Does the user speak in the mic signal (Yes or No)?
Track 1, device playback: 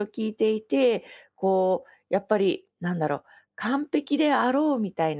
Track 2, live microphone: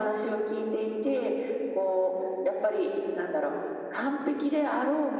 No